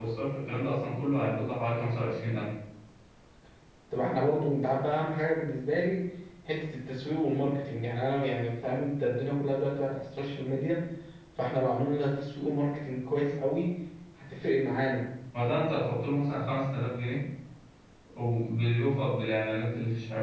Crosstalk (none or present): none